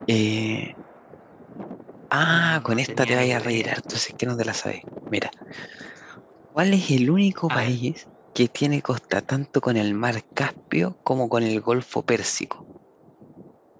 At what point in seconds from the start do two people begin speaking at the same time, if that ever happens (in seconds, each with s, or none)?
2.3 s